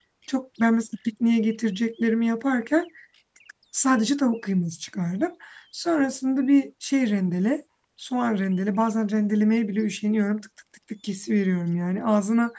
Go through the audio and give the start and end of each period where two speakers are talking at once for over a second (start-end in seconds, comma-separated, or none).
none